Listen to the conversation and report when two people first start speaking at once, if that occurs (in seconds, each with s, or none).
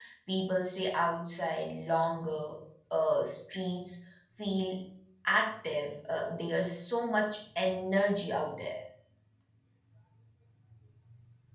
none